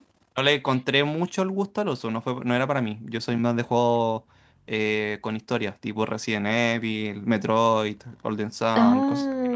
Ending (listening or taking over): taking over